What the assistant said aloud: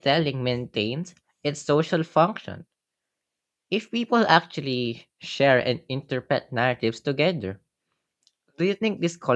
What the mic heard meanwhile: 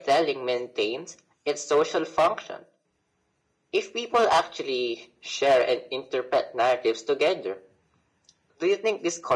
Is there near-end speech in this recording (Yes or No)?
No